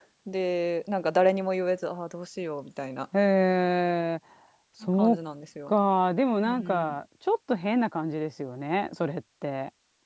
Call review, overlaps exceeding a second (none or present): none